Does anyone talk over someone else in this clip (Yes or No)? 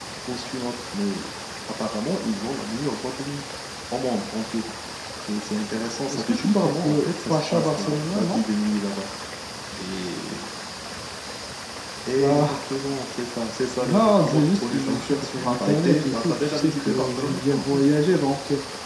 Yes